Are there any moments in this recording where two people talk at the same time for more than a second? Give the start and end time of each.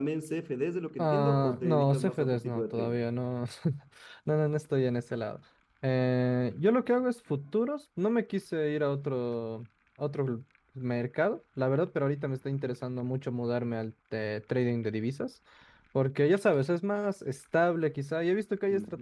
1.0-3.0

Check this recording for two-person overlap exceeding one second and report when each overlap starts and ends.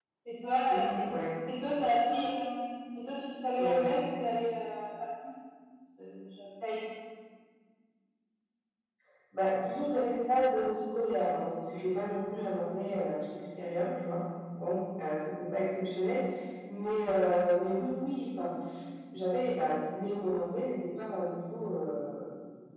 none

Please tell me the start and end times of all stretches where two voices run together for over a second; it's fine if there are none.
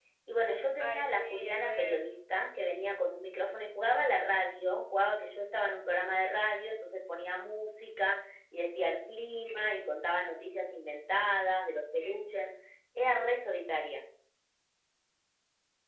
0.8-2.0

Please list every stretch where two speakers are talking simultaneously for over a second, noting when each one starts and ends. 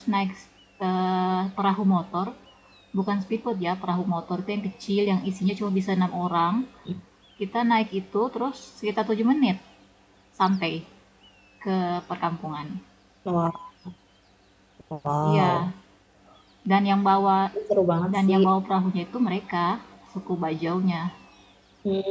none

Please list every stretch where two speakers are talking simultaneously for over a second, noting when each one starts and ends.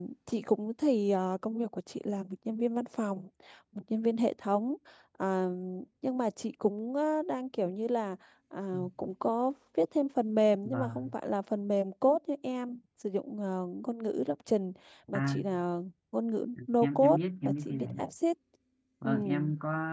16.8-18.1

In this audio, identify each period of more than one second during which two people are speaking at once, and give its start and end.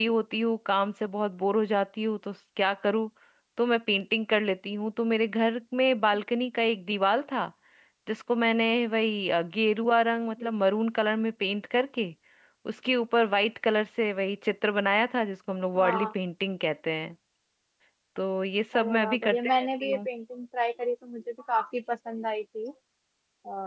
18.8-20.1

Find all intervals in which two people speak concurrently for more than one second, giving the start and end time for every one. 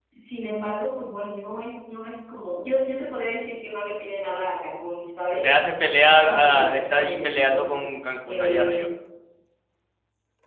6.0-7.8

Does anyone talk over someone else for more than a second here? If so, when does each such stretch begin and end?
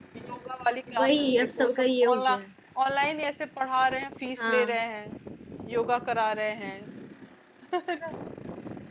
1.0-2.4

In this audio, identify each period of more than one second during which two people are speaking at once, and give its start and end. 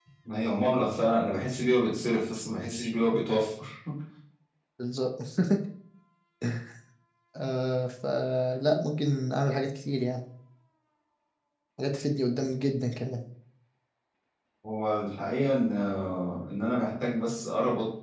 none

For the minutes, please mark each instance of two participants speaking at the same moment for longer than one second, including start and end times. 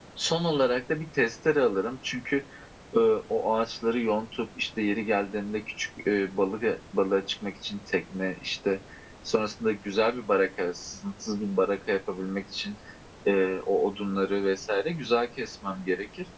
none

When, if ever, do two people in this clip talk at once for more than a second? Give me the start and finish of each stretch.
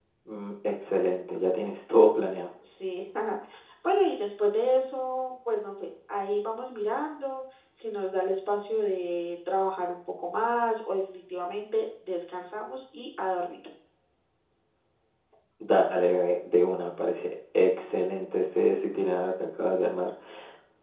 none

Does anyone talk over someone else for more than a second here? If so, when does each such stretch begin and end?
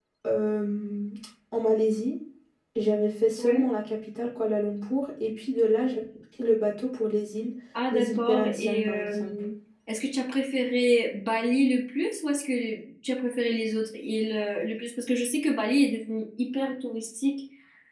7.9-9.3

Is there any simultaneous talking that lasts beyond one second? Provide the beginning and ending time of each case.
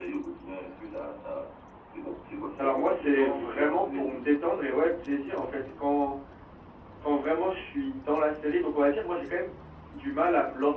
2.6-4.3

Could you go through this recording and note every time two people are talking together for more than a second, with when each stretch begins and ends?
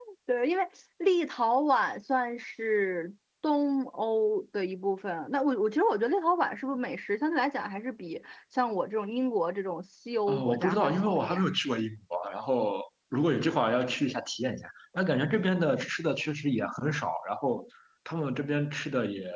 10.3-11.5

